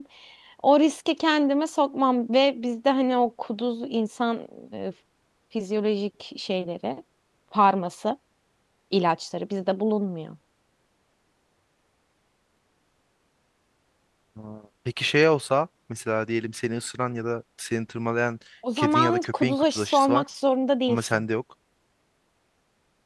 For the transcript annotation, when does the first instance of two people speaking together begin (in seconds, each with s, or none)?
18.8 s